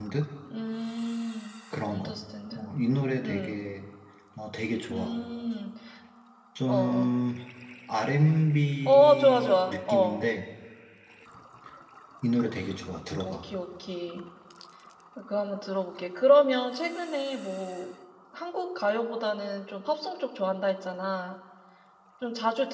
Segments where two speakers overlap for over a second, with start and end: 8.8-10.2

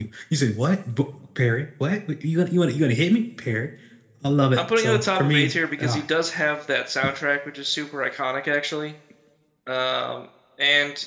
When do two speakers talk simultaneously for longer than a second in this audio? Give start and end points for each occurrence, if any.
4.8-6.0

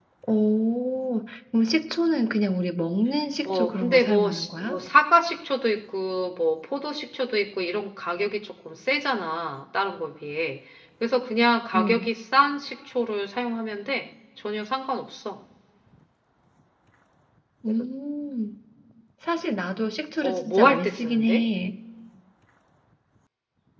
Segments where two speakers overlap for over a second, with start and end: 3.4-4.8, 20.2-21.4

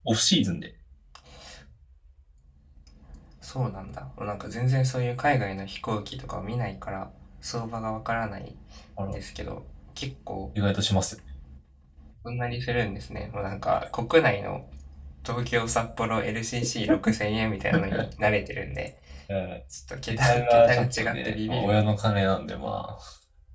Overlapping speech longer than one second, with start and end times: 20.1-22.2

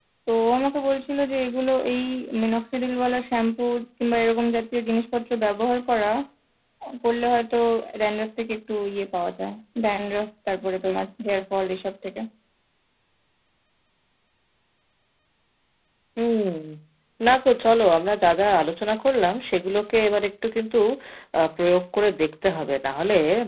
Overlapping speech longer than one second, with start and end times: none

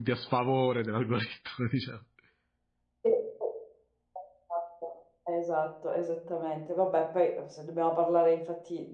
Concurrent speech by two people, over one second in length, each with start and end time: none

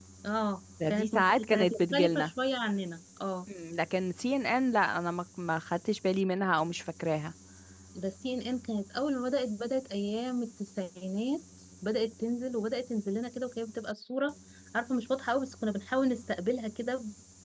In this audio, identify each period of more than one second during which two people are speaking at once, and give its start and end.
0.9-2.3

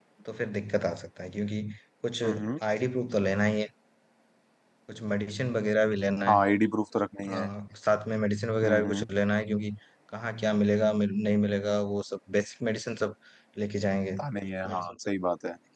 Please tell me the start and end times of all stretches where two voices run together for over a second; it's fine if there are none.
none

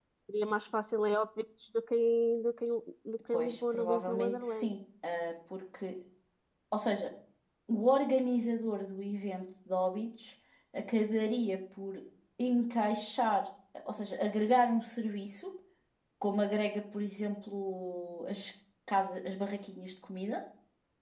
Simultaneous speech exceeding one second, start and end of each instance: 3.3-4.7

